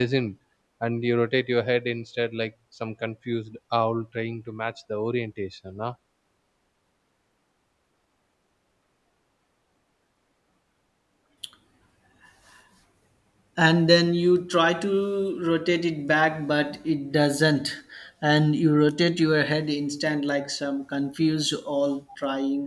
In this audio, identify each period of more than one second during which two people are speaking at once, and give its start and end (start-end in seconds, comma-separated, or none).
none